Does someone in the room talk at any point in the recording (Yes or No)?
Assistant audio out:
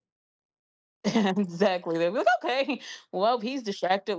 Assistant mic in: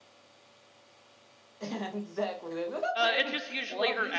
Yes